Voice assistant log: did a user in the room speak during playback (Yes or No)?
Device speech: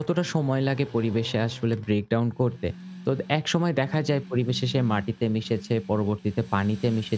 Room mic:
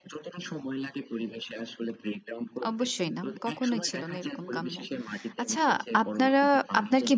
Yes